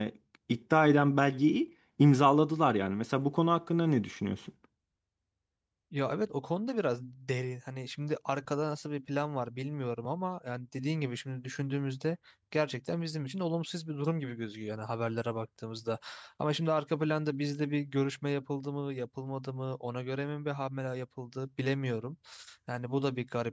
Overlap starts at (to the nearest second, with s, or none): none